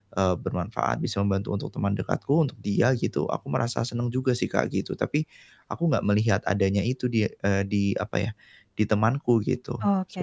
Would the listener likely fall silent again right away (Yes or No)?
No